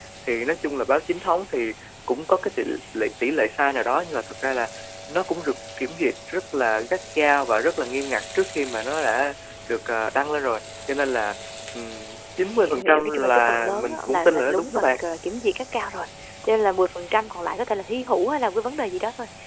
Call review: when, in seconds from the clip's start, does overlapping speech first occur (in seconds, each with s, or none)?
12.6 s